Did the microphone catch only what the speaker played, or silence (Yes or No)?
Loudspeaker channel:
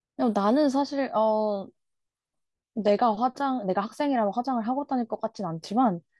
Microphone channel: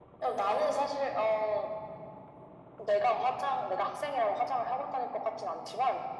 Yes